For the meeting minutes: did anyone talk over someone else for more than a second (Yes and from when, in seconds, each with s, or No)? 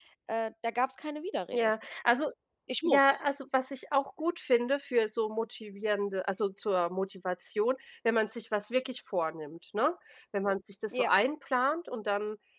No